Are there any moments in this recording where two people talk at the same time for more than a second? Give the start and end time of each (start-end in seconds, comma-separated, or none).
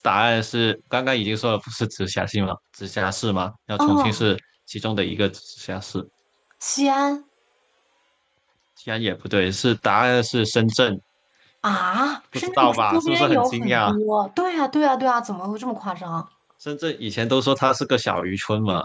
12.3-13.9